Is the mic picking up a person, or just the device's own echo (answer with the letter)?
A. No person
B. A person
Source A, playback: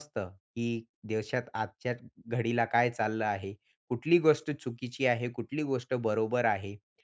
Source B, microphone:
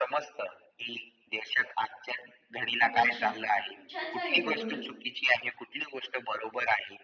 B